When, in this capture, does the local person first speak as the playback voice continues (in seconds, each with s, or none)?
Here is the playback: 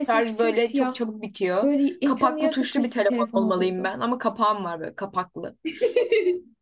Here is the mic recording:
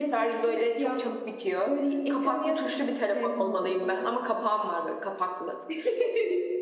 none